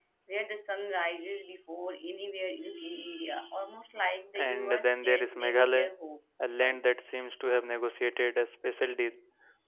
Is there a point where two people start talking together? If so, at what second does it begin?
4.4 s

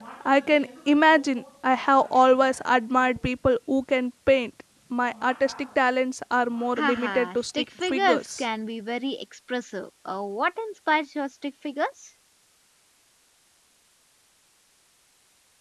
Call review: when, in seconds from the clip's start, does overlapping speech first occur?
6.8 s

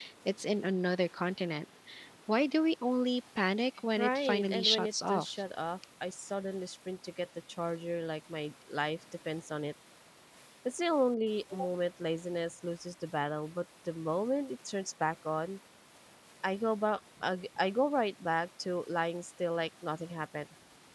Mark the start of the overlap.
4.0 s

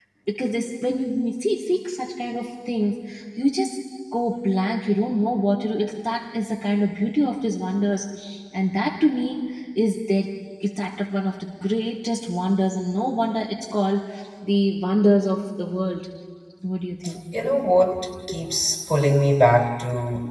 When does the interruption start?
none

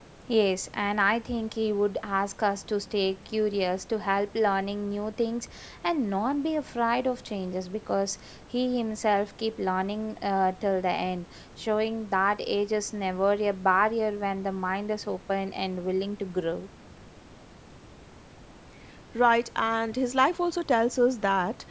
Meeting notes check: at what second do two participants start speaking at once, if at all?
none

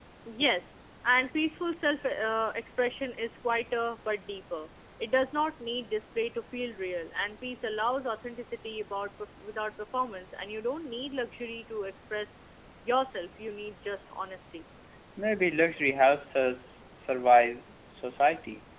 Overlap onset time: none

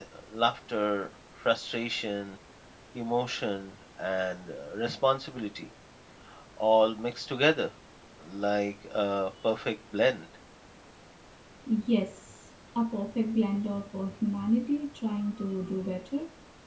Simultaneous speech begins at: none

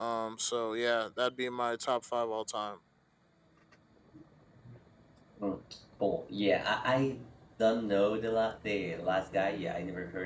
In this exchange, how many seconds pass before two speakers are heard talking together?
none

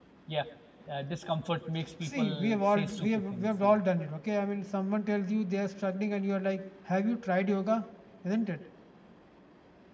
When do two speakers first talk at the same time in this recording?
2.0 s

